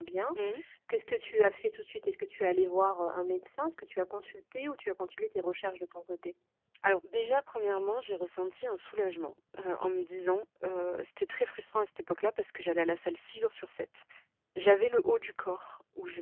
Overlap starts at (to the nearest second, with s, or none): none